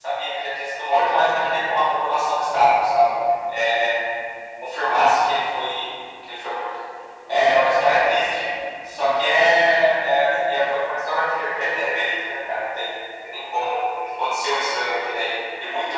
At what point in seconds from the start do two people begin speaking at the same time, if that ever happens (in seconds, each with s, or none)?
none